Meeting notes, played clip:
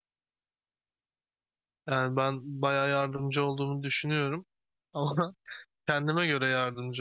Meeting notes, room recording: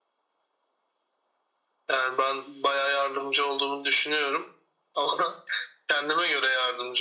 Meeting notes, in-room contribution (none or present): none